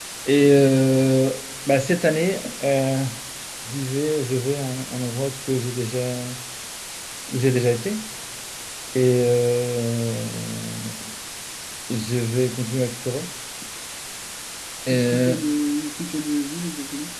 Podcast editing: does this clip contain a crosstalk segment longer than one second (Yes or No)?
No